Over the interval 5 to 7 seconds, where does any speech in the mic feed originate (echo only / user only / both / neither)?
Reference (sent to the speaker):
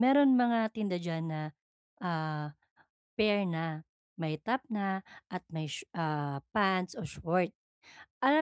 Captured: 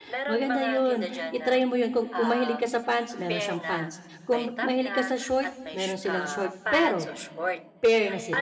both